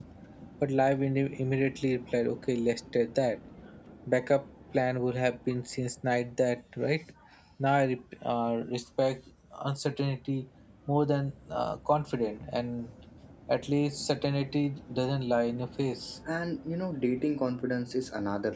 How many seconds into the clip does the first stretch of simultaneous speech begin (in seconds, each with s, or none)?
none